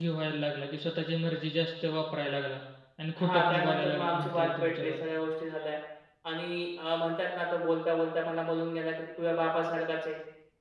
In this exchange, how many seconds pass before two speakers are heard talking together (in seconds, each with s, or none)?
3.2 s